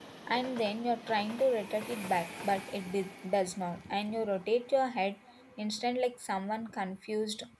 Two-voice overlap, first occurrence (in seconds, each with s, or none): none